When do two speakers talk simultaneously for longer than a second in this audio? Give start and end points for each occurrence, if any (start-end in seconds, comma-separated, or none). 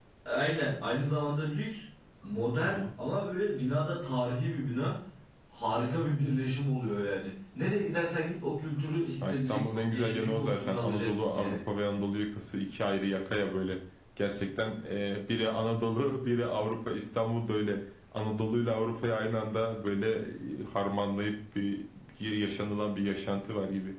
9.2-11.6